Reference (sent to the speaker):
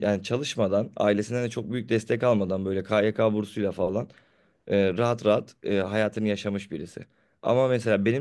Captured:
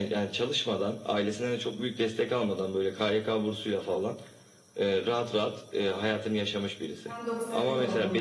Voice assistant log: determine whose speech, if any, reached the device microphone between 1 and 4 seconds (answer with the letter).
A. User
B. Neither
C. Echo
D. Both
C